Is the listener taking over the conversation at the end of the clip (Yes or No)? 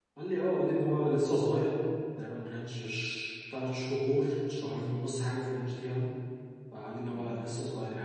No